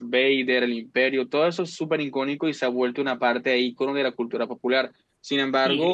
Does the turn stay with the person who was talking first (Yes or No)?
No